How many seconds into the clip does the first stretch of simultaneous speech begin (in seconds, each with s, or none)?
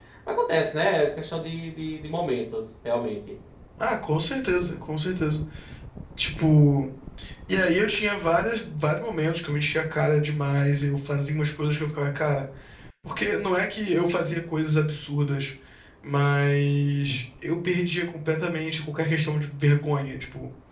none